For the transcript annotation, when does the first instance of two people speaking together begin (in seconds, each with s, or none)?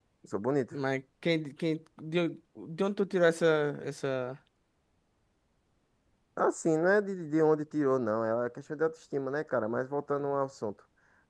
none